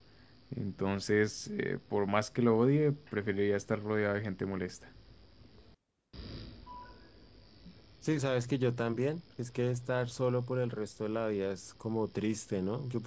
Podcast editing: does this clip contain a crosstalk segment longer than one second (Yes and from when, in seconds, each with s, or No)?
No